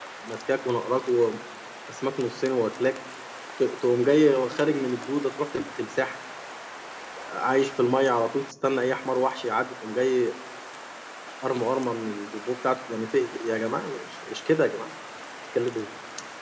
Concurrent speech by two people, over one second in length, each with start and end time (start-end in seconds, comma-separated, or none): none